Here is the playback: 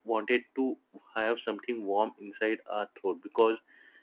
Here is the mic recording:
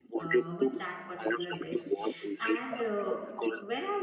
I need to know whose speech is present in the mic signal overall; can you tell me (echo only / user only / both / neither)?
both